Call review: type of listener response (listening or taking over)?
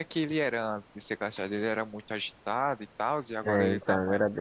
taking over